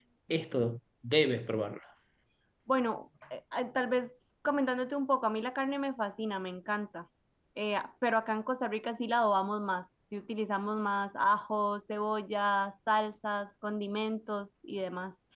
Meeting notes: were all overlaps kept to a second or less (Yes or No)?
Yes